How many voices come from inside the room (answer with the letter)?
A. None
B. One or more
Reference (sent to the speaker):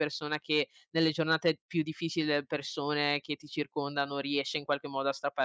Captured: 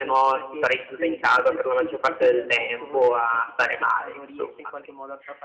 B